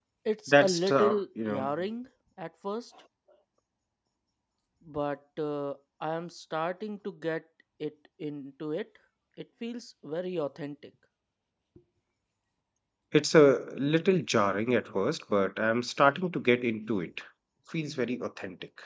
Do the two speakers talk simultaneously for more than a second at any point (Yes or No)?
Yes